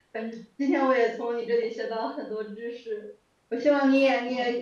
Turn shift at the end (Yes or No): No